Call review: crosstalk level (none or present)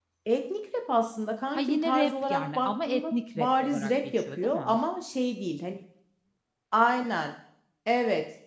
present